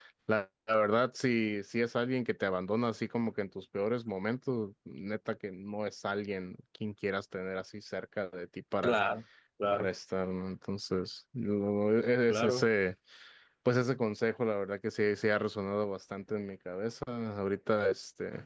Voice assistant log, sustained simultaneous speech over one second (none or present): none